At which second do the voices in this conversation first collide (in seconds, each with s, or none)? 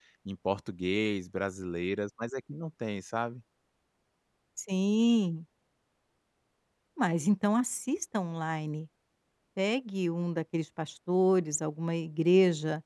none